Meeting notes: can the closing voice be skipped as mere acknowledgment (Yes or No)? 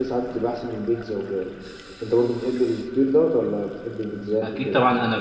No